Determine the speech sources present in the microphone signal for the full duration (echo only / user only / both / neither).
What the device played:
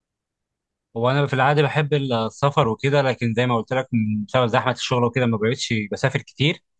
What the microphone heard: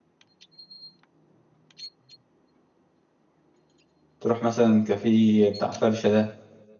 user only